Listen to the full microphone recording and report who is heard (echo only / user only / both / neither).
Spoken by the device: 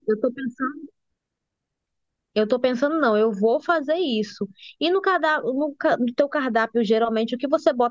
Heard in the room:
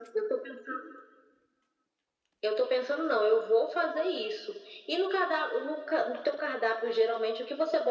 echo only